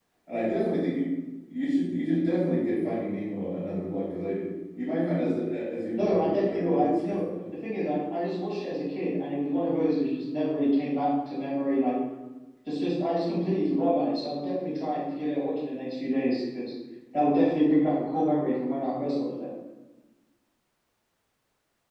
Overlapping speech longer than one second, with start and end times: 6.0-7.2

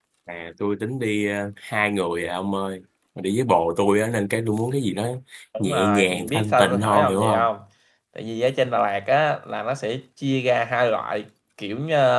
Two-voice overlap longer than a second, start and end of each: 5.6-7.5

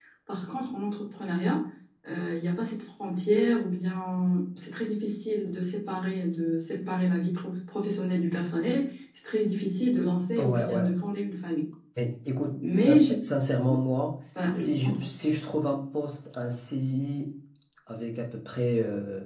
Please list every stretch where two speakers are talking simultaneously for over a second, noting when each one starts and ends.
none

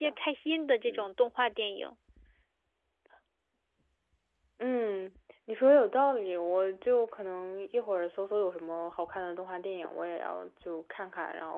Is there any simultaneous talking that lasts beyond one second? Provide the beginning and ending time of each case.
none

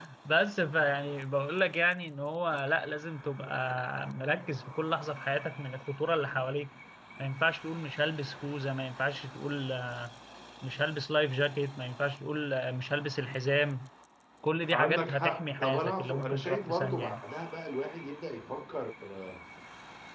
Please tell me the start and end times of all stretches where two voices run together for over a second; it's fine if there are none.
14.7-17.2

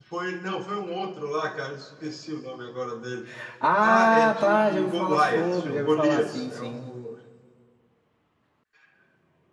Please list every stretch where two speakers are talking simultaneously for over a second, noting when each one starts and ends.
3.8-6.9

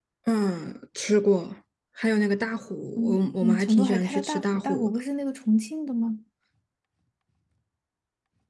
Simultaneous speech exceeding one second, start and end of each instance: 3.0-4.9

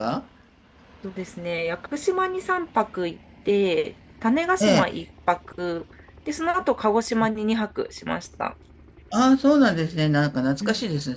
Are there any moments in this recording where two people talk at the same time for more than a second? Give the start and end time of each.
none

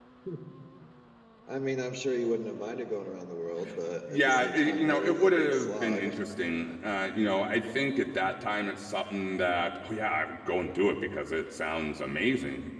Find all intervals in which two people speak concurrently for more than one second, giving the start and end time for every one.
4.1-6.1

